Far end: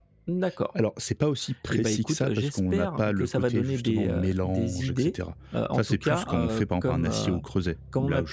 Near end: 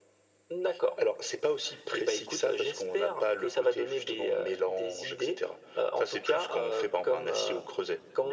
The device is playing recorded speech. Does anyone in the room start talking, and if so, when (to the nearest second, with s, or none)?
none